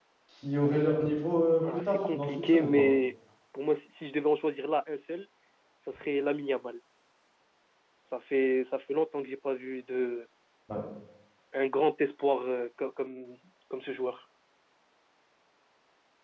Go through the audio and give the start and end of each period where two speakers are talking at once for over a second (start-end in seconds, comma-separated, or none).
1.6-2.9